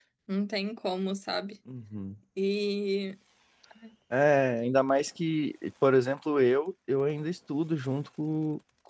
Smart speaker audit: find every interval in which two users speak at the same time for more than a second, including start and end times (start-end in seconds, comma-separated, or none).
none